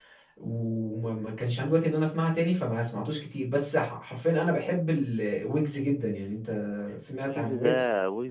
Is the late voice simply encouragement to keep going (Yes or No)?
No